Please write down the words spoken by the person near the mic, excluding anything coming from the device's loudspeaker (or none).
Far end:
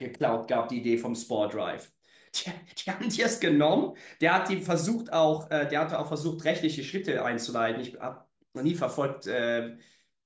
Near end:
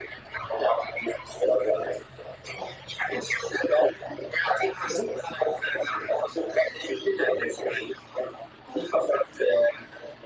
none